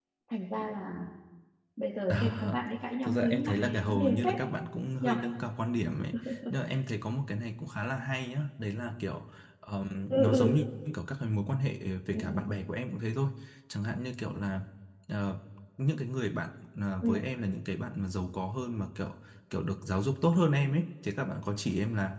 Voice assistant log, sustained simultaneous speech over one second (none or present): present